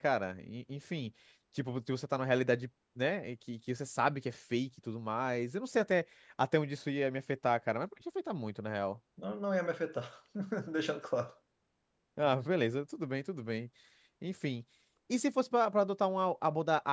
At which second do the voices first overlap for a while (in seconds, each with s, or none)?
none